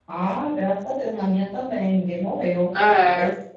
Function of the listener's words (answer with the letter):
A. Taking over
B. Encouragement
B